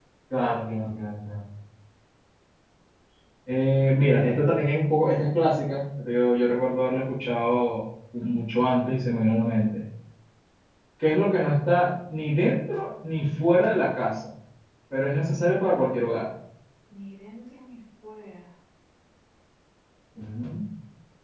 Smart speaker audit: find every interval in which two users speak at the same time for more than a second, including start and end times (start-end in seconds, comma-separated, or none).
none